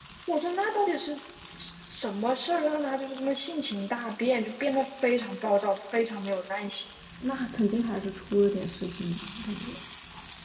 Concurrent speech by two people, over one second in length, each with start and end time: none

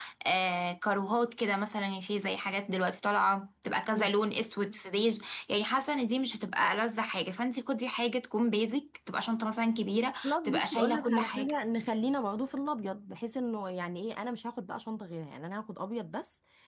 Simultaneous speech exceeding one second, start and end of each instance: 10.2-11.6

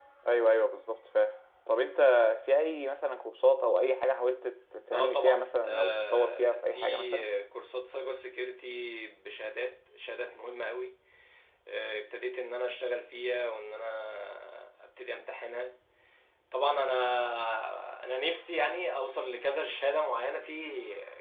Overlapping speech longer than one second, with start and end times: 4.9-7.2

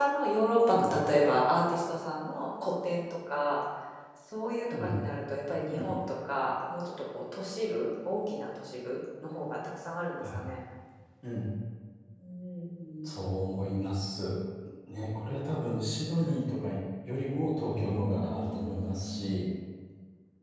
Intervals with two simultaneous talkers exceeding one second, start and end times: 17.9-19.3

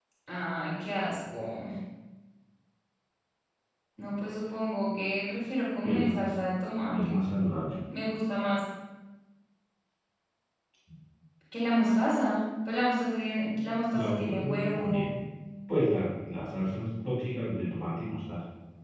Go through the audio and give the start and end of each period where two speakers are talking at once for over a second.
13.9-15.2

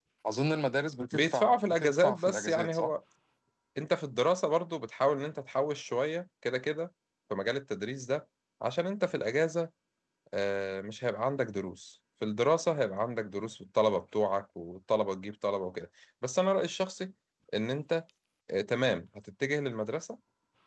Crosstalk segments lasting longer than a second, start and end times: 1.1-2.9

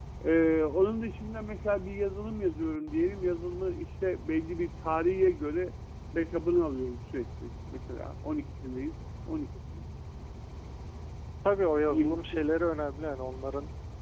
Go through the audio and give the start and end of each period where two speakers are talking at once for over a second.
none

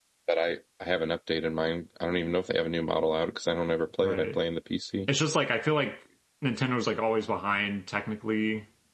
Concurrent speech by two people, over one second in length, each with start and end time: none

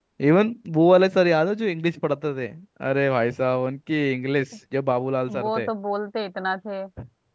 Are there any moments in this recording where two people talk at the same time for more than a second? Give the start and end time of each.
none

